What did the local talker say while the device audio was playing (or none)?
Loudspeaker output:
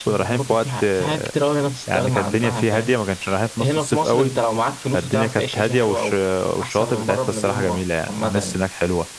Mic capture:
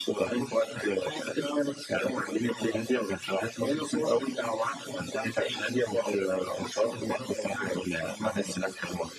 none